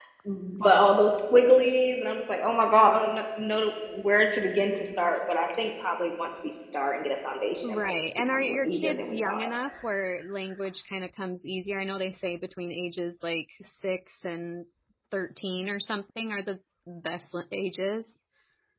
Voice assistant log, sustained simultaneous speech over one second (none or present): present